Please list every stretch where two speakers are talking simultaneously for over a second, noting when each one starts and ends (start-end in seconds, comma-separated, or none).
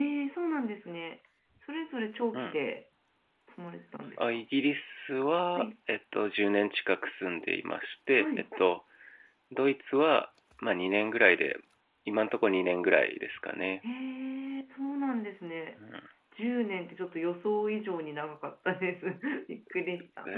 none